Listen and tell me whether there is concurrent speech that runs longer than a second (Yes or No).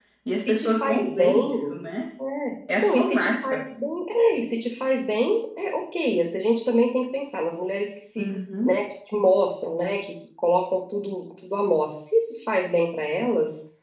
Yes